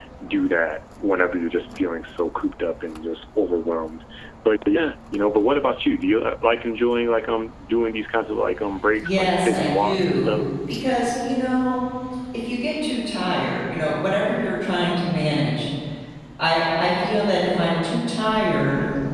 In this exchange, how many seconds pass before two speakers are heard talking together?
9.0 s

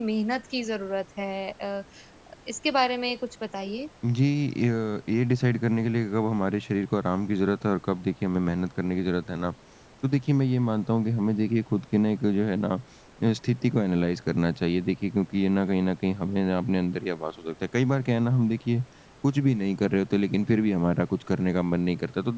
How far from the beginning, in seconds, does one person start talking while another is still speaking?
none

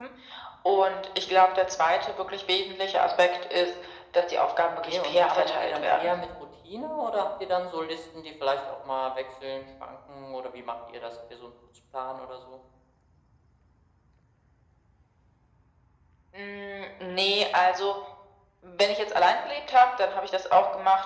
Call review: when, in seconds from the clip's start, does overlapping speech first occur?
4.8 s

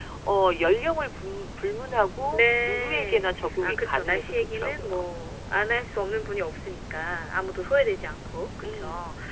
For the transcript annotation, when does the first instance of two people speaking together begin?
2.3 s

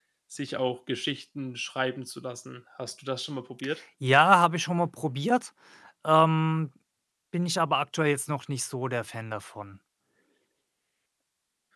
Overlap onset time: none

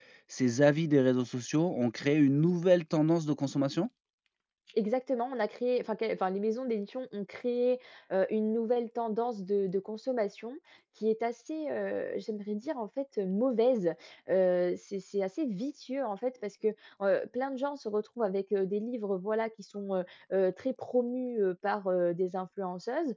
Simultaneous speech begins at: none

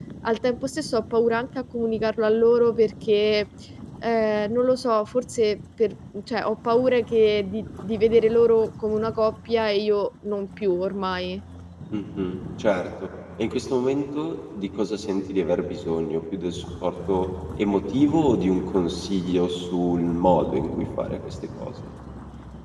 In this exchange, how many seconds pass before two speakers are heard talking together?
none

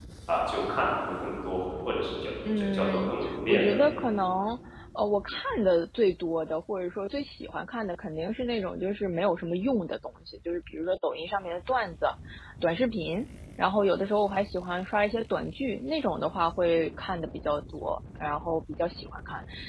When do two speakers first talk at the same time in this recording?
2.5 s

